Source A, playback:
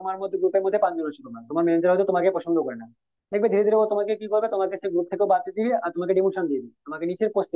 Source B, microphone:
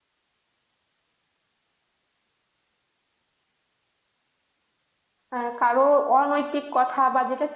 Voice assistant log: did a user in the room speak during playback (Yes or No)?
Yes